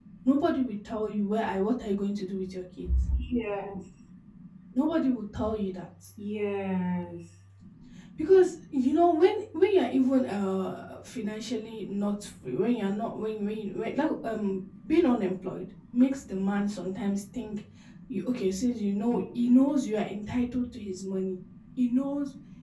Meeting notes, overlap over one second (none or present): none